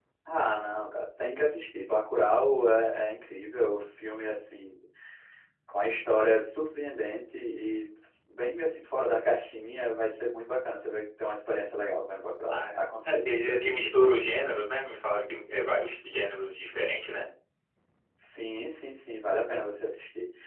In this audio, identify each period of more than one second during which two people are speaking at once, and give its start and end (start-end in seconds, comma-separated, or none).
12.5-13.9